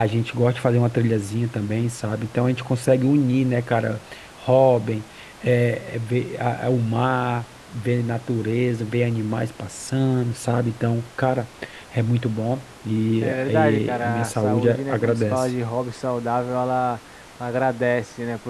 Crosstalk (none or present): present